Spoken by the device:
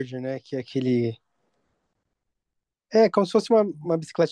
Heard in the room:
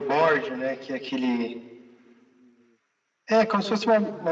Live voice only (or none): none